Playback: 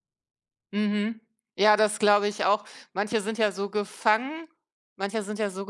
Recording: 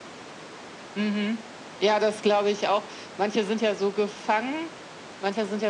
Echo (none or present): present